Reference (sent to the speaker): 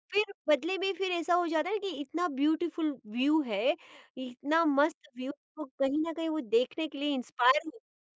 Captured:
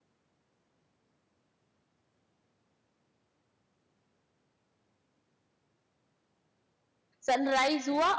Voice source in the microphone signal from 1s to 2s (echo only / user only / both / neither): neither